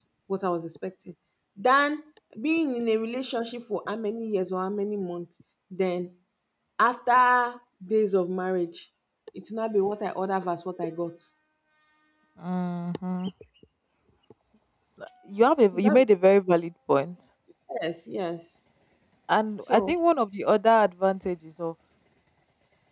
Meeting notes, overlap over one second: none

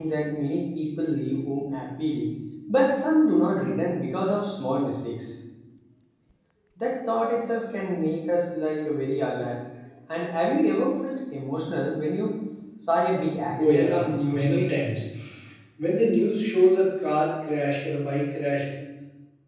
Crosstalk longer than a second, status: present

